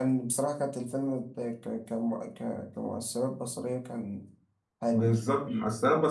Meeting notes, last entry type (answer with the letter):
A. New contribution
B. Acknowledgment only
A